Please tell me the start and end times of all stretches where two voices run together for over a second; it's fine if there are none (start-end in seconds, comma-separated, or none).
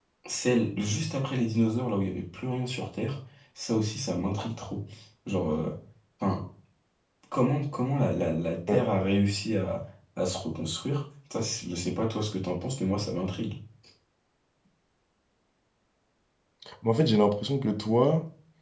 none